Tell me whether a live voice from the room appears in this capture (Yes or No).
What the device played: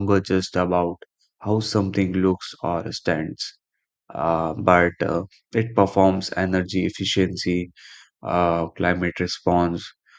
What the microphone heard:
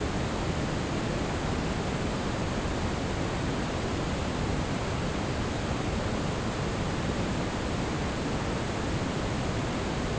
No